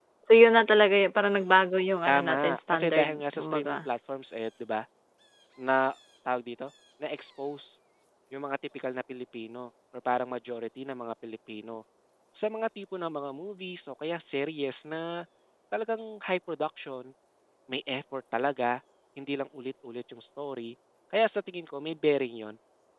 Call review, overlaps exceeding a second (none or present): present